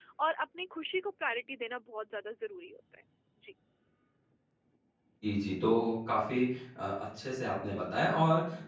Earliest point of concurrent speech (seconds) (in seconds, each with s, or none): none